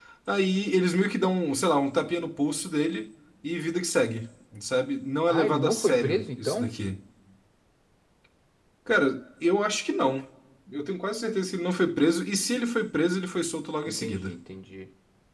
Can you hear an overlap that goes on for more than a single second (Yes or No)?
Yes